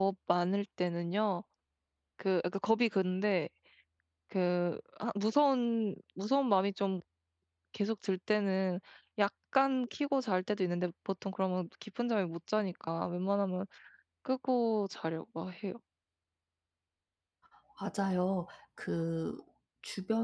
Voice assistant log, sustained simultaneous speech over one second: none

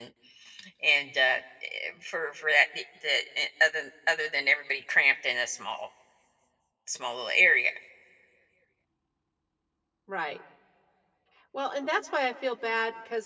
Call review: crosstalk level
none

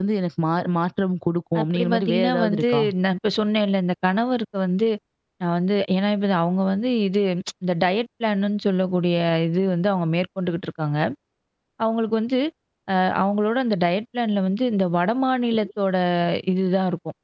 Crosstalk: present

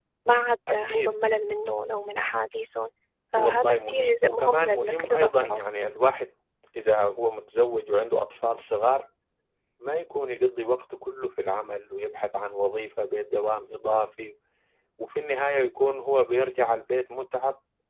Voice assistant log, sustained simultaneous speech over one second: present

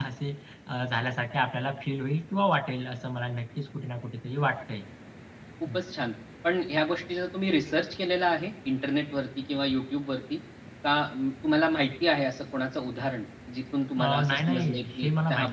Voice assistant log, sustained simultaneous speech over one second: present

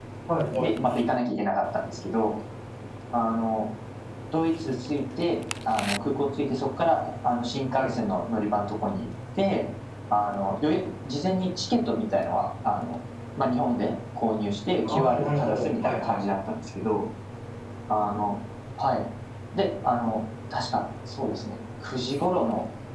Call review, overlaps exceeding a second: present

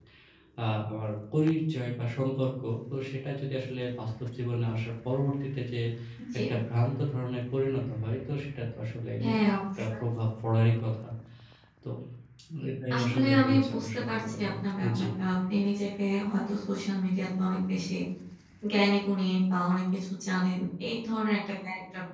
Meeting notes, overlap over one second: present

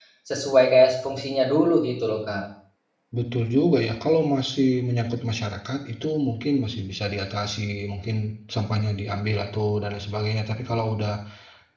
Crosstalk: none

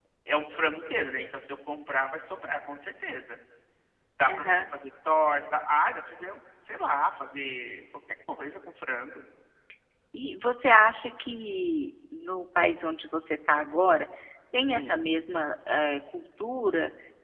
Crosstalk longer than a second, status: none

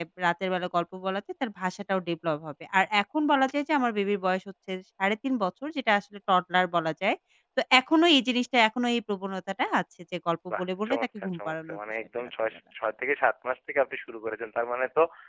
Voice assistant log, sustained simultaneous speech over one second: present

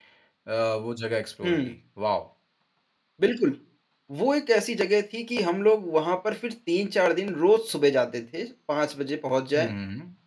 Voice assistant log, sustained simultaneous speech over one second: none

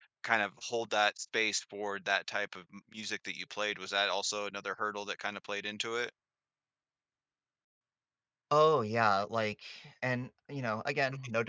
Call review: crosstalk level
none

